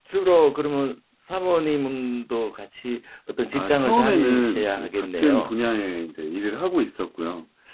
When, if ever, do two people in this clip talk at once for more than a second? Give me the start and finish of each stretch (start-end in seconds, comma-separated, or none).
3.5-5.5